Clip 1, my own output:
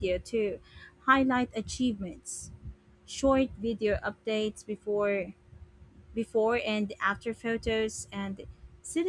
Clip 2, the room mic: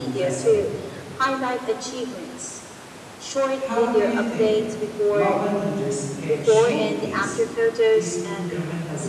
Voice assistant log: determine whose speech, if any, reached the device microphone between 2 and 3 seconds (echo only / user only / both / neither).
echo only